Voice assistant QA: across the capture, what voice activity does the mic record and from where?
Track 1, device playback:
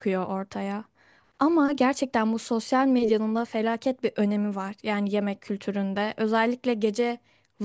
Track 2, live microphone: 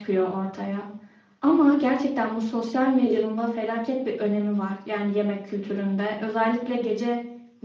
echo only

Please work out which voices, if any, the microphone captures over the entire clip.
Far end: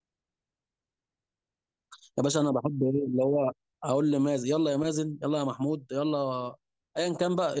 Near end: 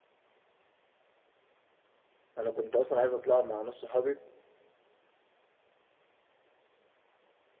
user only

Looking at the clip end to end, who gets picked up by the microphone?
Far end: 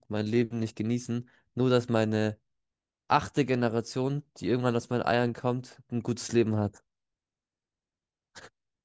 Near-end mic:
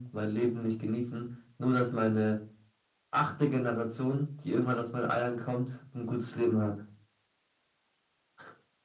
echo only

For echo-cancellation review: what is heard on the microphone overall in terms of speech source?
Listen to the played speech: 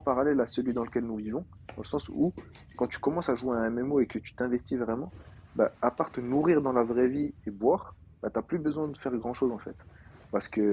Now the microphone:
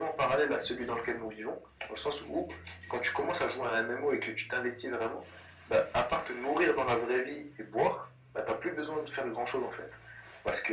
echo only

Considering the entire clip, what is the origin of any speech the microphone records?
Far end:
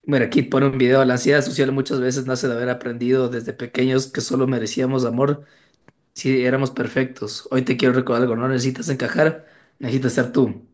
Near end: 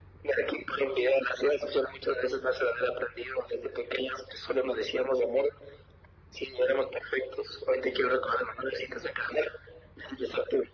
echo only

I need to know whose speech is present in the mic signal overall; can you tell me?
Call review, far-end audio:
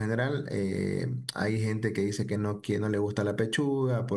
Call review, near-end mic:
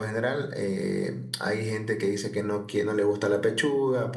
echo only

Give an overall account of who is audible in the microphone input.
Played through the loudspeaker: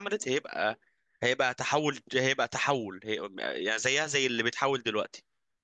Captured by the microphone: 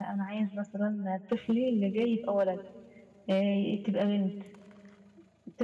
user only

